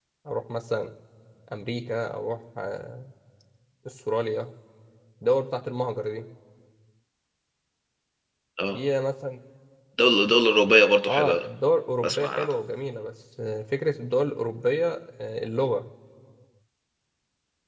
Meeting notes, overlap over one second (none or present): none